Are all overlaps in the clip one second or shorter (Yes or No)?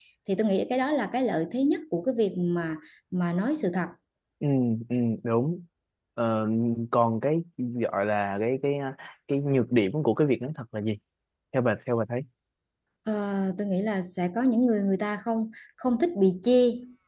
Yes